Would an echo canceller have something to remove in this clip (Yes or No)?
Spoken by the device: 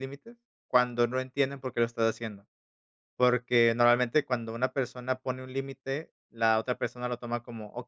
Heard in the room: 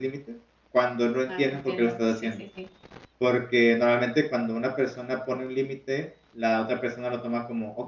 Yes